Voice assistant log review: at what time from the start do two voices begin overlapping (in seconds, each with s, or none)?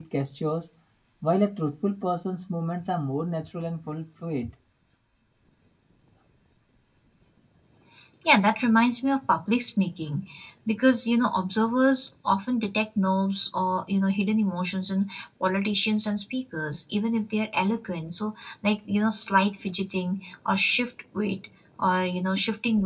none